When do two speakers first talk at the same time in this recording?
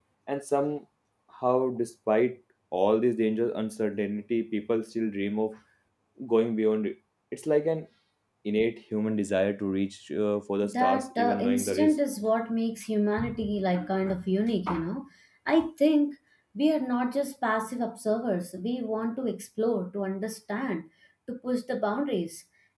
10.6 s

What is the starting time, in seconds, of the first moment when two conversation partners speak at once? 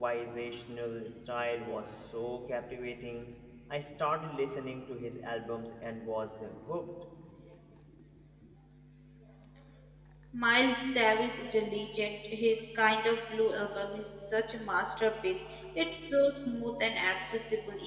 none

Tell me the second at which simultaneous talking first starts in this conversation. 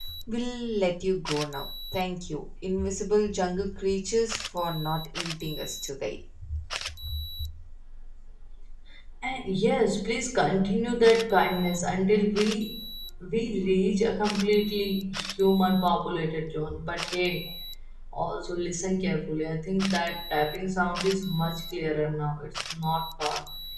none

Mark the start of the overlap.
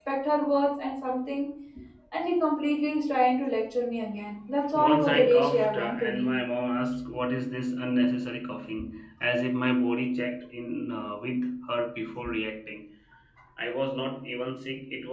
4.7 s

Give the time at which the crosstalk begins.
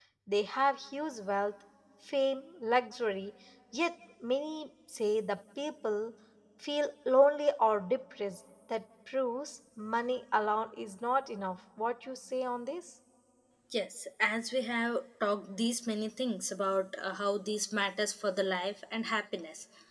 none

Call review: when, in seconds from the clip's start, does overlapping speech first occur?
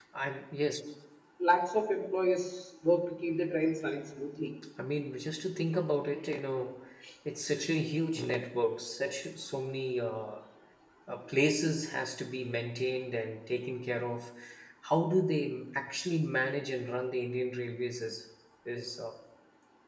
none

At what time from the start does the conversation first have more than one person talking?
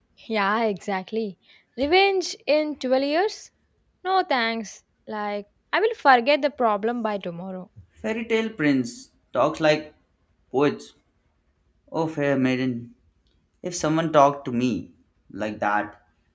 none

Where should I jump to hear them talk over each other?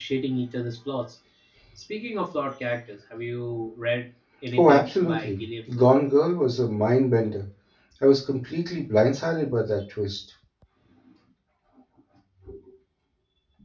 4.6 s

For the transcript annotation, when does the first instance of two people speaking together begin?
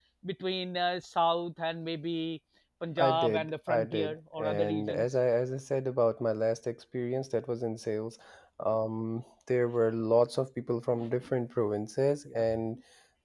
3.0 s

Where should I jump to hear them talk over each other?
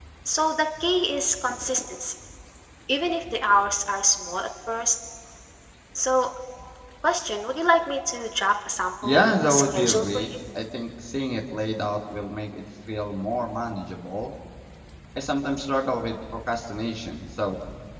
9.0 s

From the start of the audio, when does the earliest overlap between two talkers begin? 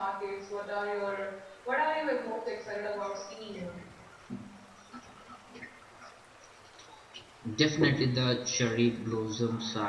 none

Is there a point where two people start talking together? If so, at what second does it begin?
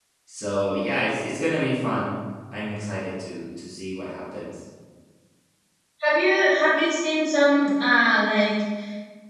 none

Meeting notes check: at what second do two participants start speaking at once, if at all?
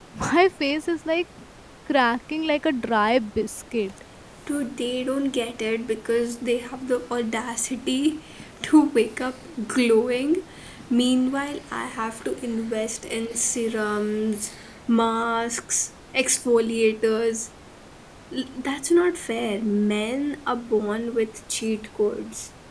none

